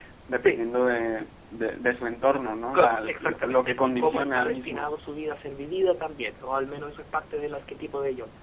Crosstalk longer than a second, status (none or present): present